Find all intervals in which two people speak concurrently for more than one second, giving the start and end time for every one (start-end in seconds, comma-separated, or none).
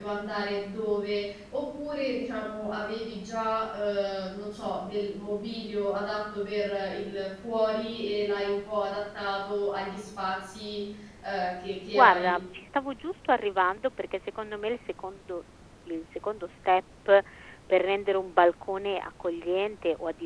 none